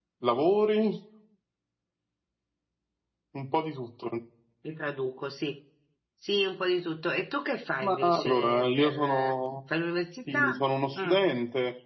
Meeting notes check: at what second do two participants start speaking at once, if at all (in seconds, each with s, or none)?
7.8 s